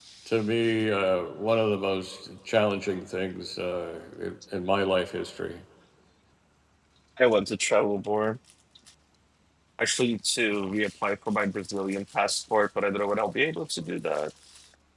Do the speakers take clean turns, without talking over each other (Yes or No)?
Yes